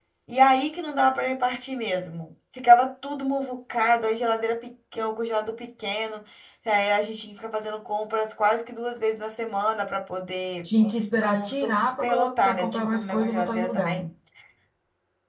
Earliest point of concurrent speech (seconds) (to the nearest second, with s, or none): 11 s